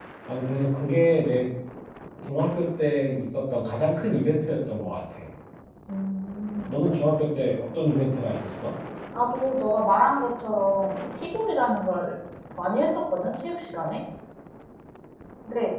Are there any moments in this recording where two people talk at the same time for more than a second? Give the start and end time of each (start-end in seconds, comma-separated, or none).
none